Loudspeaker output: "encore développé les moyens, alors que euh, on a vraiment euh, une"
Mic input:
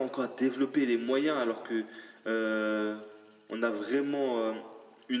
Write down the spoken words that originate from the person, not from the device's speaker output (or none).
none